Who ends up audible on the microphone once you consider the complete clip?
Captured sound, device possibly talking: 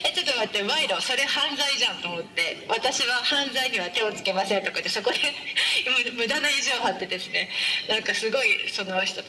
echo only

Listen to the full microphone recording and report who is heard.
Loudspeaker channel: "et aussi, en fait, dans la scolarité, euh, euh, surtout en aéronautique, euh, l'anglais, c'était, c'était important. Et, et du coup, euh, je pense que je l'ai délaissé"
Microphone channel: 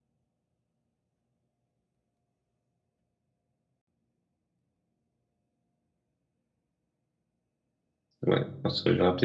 user only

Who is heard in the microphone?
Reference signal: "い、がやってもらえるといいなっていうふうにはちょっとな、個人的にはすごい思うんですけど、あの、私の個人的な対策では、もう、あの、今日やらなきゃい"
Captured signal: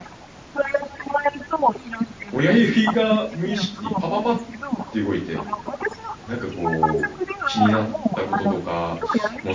both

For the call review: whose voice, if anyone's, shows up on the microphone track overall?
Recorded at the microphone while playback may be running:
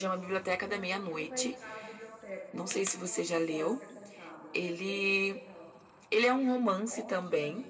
both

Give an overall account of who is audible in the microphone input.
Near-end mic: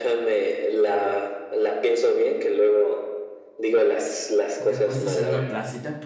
both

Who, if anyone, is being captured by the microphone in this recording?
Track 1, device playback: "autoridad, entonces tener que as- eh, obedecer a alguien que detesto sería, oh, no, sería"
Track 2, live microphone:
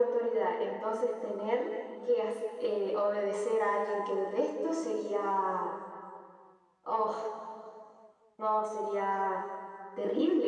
echo only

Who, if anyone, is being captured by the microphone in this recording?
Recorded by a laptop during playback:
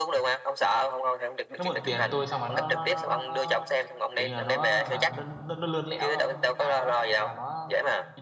both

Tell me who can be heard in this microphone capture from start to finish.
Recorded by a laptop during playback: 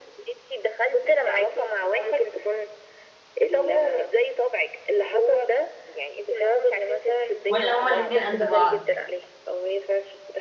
both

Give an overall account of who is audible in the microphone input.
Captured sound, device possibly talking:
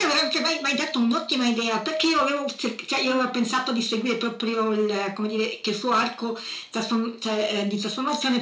both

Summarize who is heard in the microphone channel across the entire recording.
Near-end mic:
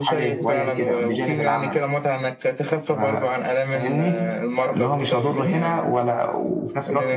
both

